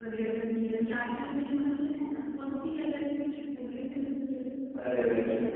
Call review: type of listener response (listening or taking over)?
taking over